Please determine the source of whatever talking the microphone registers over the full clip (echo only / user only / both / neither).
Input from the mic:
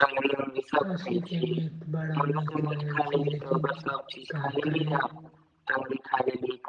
both